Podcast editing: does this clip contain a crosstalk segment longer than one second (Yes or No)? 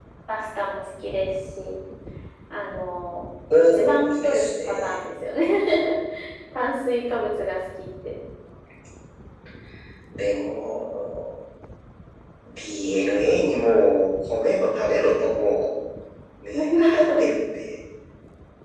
Yes